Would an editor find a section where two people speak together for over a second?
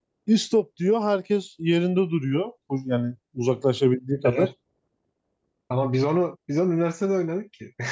No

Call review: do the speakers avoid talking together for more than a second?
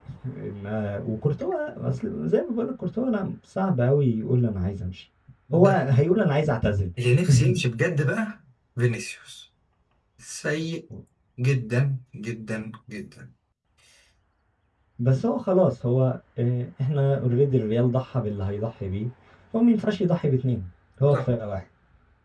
Yes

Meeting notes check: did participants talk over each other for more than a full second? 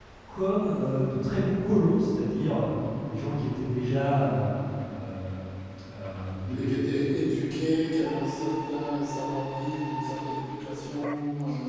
No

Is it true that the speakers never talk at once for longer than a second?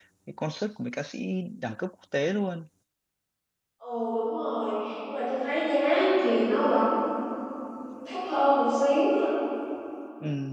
Yes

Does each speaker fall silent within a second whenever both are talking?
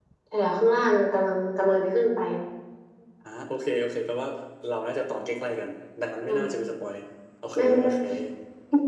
Yes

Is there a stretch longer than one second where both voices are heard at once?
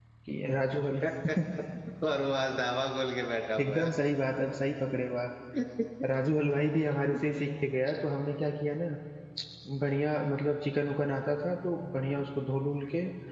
No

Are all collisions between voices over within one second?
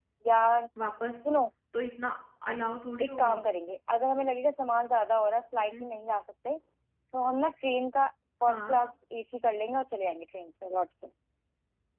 Yes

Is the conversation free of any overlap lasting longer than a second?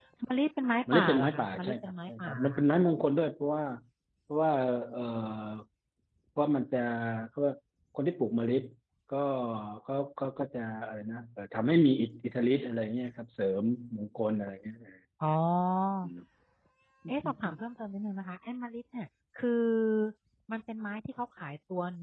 No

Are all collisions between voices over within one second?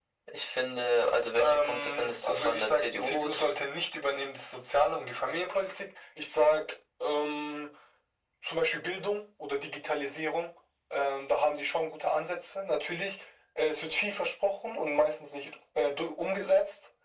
No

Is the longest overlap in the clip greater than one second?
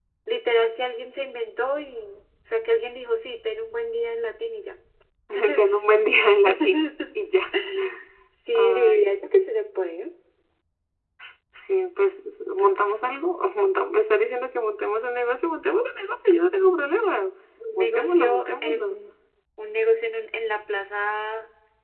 Yes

